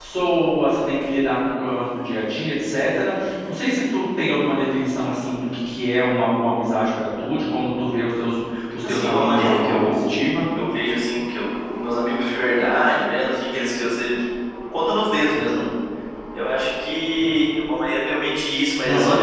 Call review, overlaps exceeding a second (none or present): present